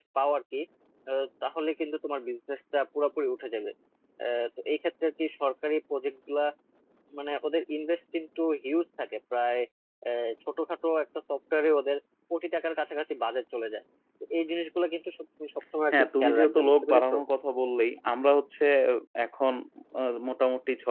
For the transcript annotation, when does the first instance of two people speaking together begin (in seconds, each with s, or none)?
15.9 s